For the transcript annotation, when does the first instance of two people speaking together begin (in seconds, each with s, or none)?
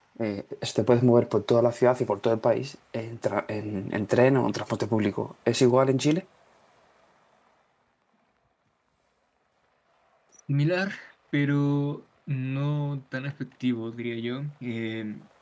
none